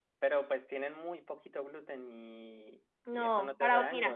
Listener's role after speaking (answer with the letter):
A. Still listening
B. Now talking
B